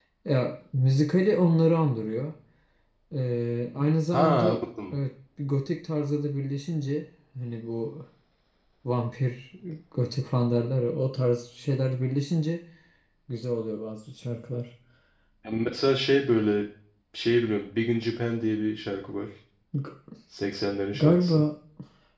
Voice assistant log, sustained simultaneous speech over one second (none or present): none